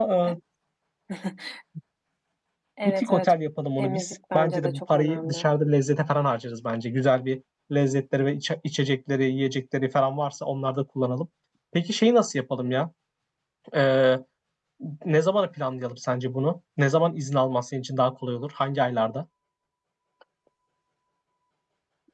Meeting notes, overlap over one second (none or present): present